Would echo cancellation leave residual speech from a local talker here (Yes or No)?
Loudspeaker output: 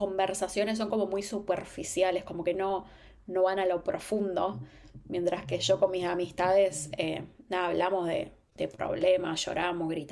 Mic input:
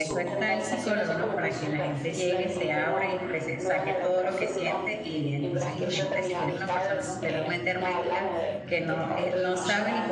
Yes